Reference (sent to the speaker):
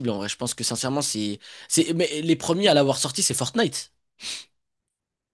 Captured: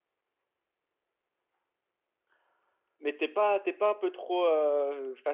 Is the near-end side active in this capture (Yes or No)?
Yes